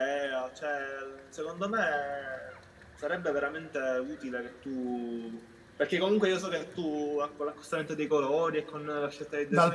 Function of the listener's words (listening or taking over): taking over